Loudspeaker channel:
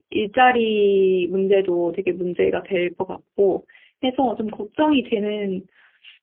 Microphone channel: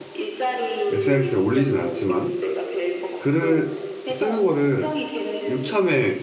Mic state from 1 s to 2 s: both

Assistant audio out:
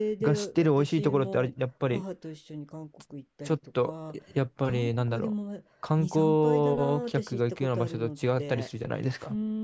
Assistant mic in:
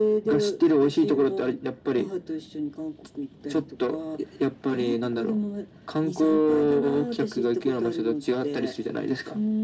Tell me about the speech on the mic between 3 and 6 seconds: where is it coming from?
echo only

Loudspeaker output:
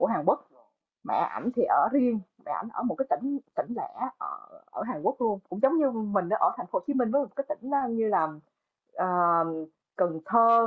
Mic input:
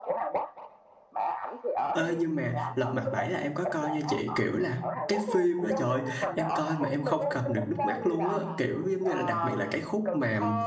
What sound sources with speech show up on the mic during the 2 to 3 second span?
both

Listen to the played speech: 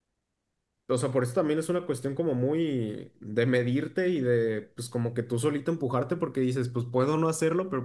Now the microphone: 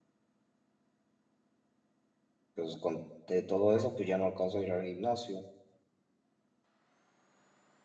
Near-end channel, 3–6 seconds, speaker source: user only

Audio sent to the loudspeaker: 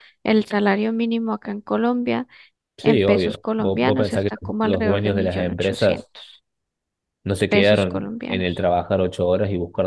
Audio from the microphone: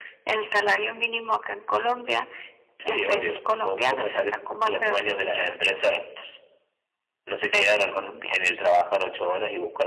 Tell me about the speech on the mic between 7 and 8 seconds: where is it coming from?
echo only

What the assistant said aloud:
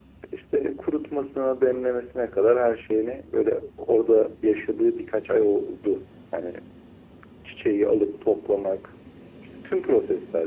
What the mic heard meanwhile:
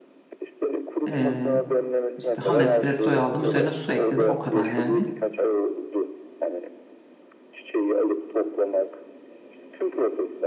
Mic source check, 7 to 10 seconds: echo only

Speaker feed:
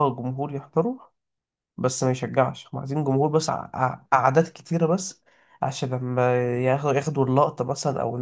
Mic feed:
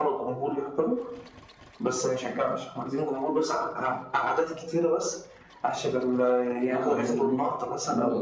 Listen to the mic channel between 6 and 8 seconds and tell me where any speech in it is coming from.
both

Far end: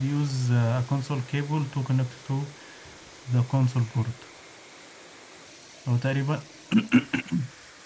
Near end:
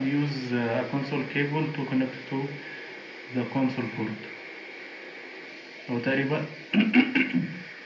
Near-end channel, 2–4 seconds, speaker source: echo only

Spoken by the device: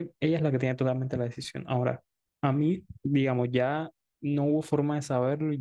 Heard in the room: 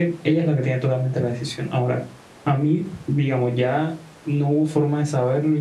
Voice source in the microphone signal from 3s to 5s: echo only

